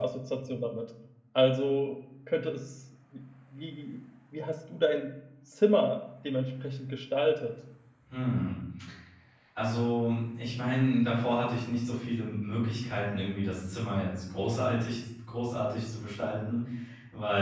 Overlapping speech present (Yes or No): No